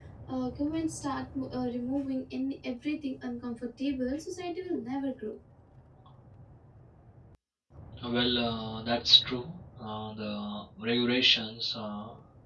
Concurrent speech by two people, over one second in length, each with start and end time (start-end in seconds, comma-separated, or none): none